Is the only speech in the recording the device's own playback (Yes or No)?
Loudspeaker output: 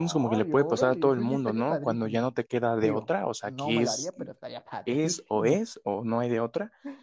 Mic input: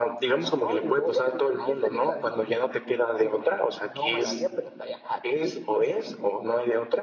Yes